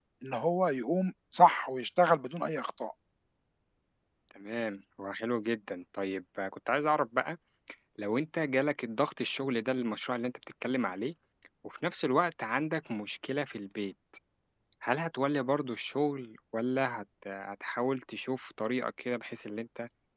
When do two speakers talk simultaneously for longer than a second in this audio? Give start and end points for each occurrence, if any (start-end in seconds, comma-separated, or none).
none